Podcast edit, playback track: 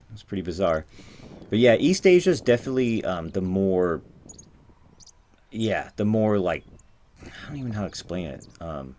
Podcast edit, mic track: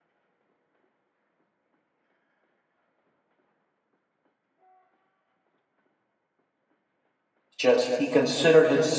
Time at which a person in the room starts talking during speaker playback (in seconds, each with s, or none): 7.6 s